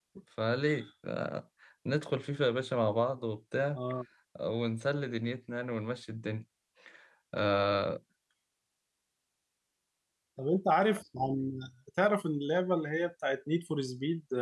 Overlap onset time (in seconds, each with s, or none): none